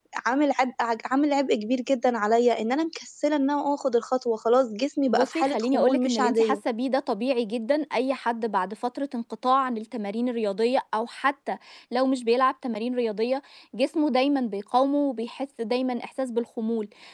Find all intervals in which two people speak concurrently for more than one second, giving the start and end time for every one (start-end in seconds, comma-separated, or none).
5.1-6.6